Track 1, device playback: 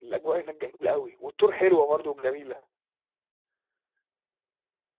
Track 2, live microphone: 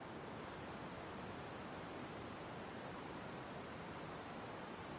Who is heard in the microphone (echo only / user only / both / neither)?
neither